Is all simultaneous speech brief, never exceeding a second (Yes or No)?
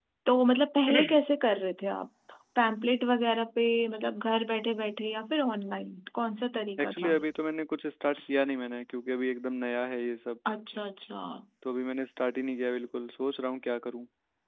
Yes